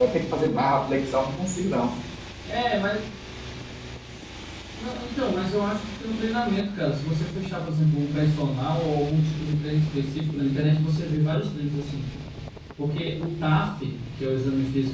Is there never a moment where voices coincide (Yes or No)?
Yes